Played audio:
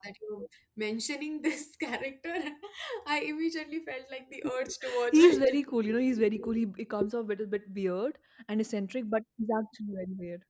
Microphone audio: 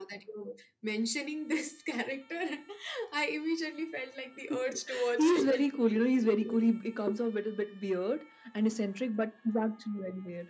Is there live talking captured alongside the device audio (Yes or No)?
No